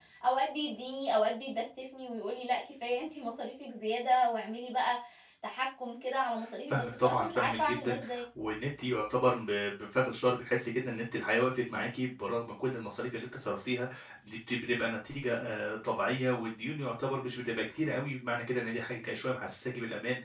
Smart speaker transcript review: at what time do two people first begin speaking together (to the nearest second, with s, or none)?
7 s